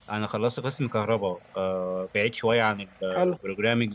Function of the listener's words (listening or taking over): listening